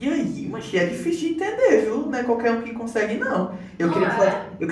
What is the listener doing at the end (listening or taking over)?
listening